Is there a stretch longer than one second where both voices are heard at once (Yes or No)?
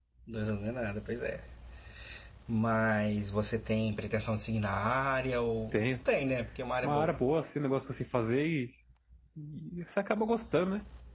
No